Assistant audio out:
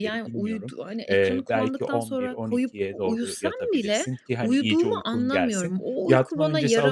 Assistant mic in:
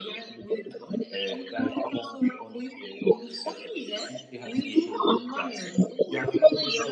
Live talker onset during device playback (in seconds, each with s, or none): none